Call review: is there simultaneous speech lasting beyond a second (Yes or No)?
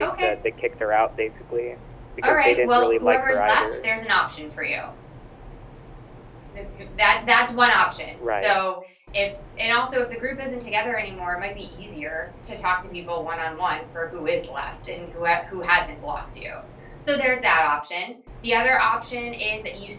Yes